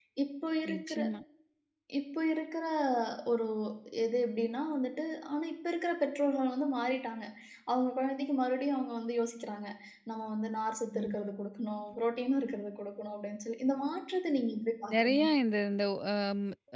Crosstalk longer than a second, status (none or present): none